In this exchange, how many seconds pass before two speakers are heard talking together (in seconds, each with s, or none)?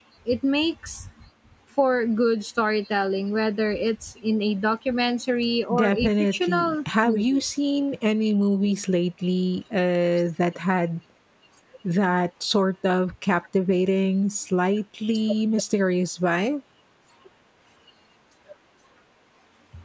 5.7 s